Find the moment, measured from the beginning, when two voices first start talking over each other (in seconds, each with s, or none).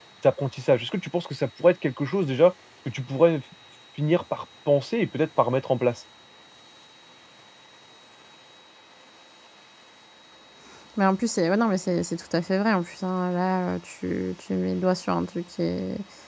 none